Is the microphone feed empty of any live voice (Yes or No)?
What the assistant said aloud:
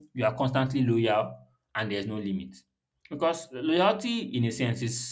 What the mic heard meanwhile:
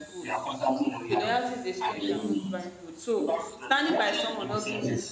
No